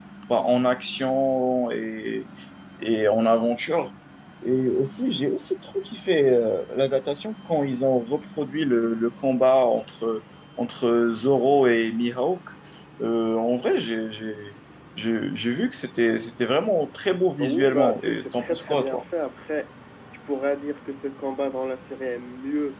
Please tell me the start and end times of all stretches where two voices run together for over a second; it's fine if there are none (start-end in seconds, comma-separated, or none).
17.4-19.0